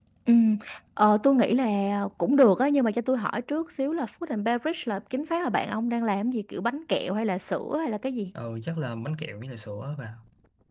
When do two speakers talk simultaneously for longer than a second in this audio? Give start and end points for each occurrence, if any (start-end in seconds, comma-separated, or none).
none